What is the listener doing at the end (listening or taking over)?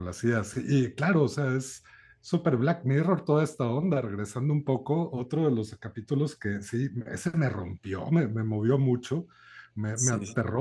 listening